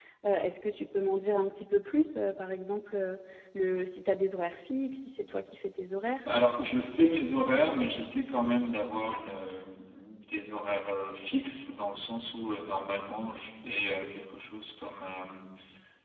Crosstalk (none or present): none